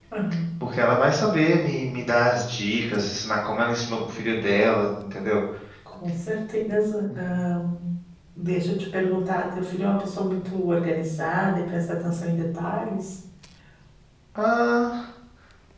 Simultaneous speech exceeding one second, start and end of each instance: none

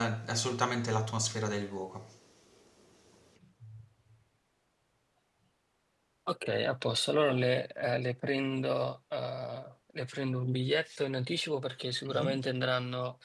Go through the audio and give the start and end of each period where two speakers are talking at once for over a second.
none

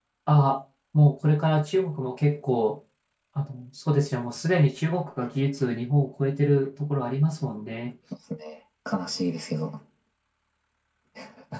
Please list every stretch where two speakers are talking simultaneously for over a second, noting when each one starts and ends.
none

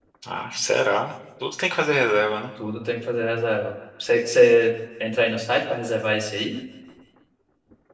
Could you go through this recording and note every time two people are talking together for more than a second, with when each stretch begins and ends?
none

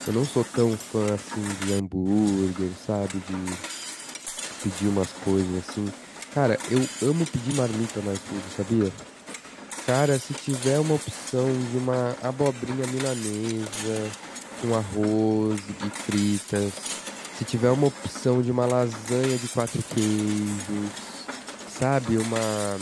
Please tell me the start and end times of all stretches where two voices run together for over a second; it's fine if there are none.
none

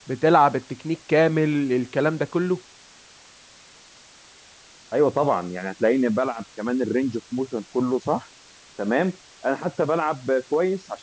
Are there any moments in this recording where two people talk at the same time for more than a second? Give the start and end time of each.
none

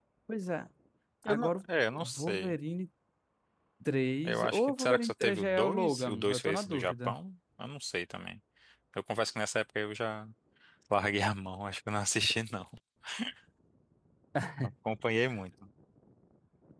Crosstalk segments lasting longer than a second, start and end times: 4.2-7.2

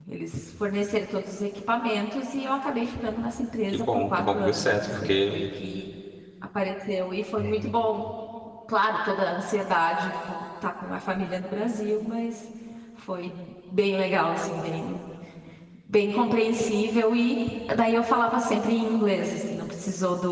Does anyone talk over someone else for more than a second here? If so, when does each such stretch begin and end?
3.7-5.3

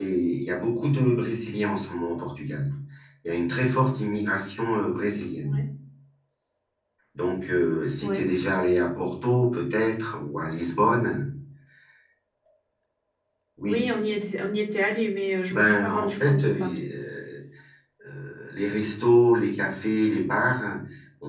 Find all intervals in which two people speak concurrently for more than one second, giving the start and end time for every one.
15.5-16.7

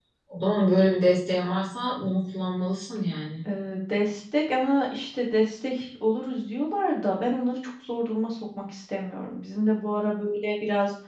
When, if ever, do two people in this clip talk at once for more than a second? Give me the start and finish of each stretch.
none

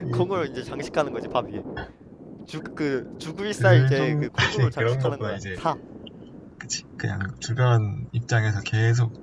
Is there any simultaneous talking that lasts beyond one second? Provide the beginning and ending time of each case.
3.6-5.6

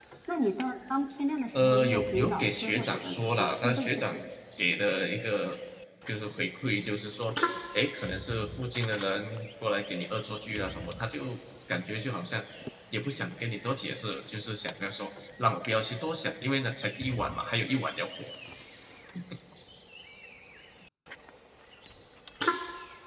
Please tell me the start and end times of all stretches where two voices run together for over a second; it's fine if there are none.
1.5-4.0

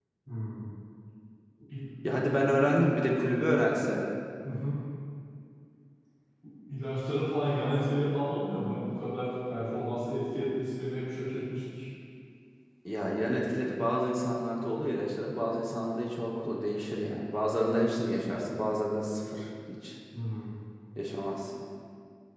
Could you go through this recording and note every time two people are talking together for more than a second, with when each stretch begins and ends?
none

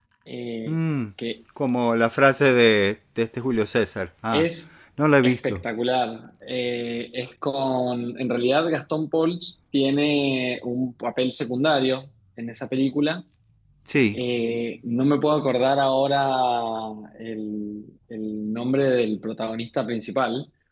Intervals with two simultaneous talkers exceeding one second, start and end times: none

